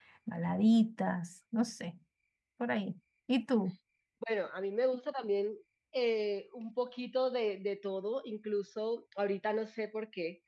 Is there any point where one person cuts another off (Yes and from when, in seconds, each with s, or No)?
No